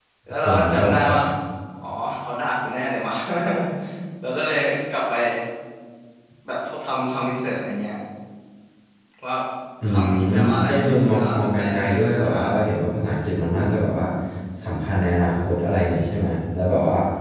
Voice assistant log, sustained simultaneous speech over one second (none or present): present